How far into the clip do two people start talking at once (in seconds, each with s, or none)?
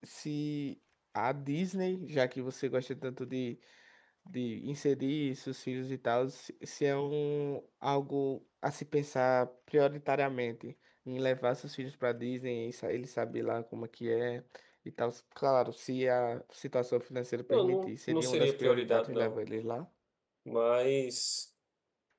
17.5 s